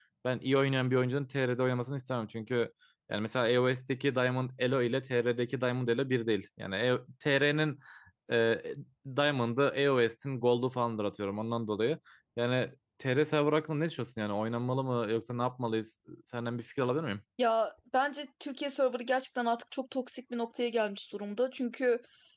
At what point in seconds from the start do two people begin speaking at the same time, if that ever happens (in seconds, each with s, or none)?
none